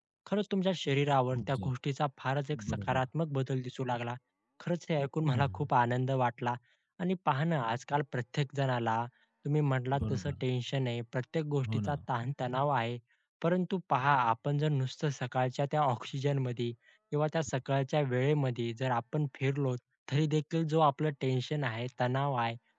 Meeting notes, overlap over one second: none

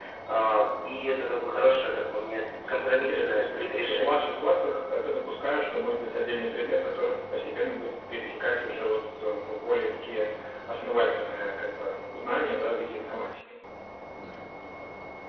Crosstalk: present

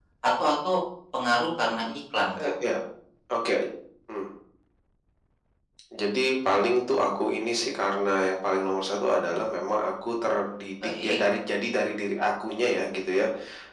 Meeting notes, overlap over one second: none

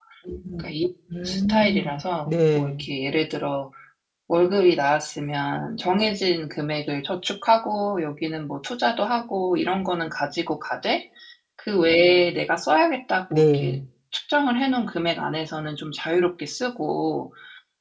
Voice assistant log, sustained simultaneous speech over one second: present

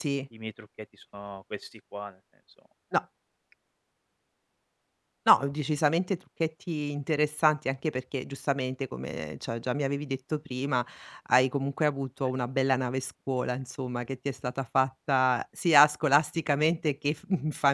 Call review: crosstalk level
none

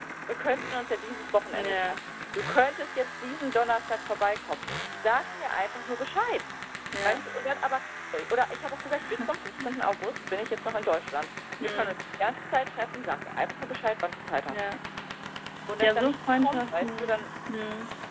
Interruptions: present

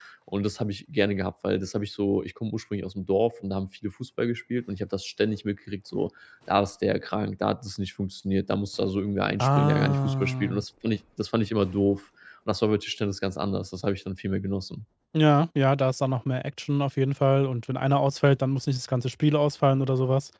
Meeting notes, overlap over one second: present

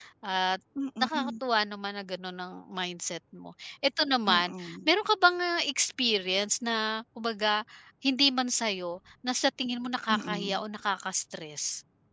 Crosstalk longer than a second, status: none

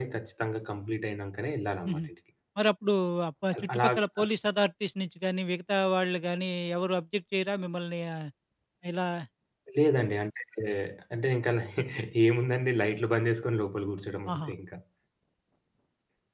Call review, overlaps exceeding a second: none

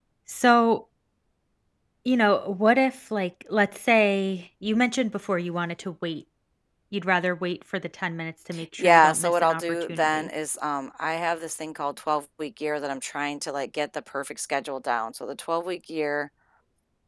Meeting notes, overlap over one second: present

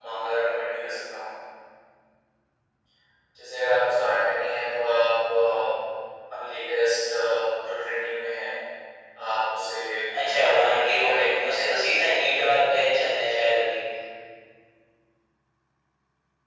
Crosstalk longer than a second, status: present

